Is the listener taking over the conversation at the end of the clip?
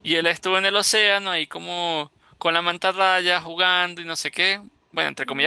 No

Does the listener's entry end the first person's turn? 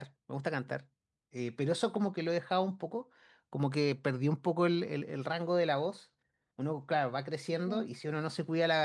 No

